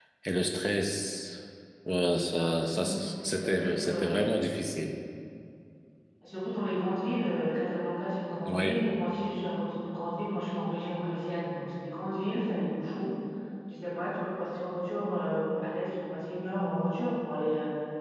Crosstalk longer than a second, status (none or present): present